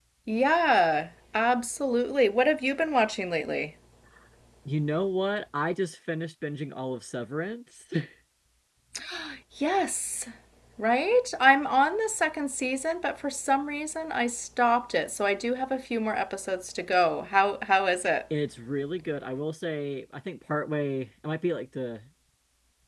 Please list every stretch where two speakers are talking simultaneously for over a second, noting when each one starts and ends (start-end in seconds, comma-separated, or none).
none